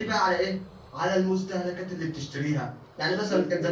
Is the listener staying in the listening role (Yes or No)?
Yes